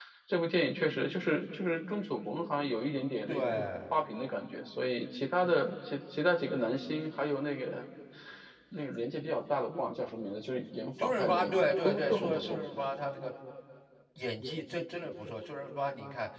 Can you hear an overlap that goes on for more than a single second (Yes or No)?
Yes